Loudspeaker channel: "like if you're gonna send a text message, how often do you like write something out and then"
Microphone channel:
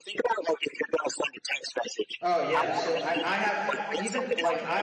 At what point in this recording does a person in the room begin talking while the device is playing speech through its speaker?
2.2 s

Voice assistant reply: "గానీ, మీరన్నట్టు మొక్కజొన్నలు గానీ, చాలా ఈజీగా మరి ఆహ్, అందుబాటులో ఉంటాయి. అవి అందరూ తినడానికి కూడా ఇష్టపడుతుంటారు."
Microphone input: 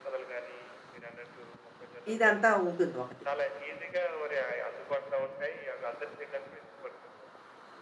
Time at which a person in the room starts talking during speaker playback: 2.1 s

